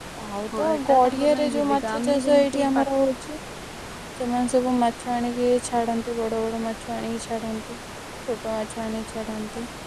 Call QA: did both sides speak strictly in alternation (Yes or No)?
No